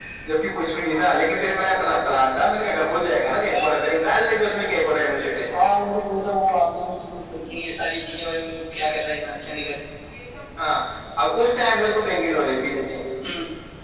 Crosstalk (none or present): none